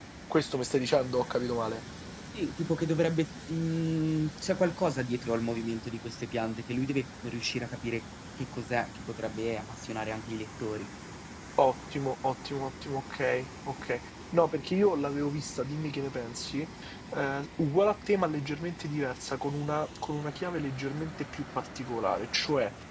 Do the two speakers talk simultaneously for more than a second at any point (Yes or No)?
No